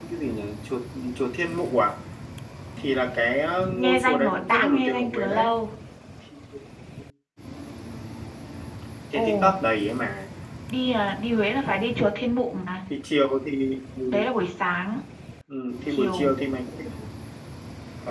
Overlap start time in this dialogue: 3.8 s

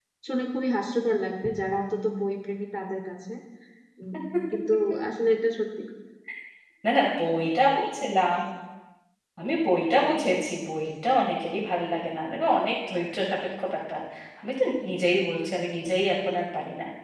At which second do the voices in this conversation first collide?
none

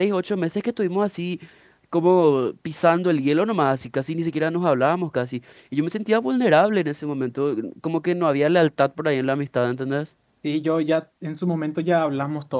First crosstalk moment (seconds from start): none

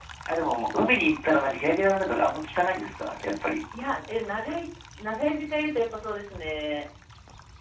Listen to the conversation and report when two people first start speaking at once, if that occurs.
none

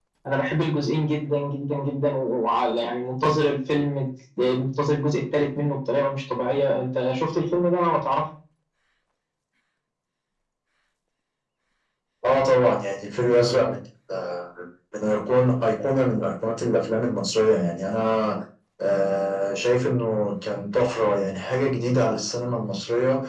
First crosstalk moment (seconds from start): none

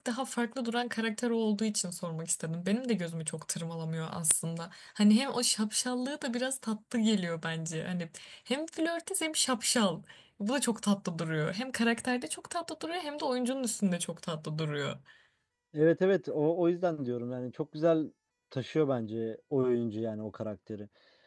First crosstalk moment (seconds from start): none

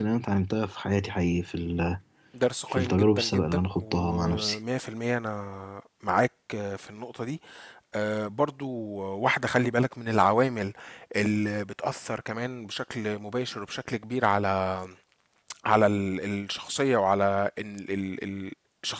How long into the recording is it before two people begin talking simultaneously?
2.7 s

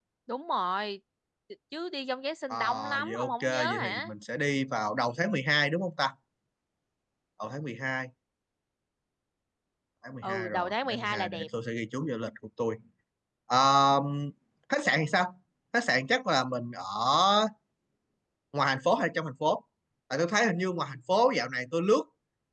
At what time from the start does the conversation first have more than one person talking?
2.5 s

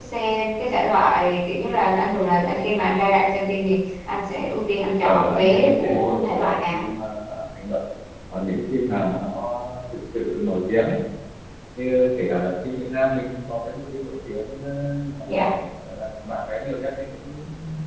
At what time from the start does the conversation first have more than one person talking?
5.0 s

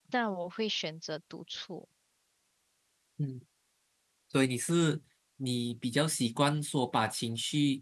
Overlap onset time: none

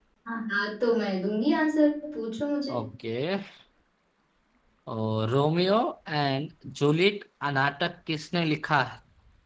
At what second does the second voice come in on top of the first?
none

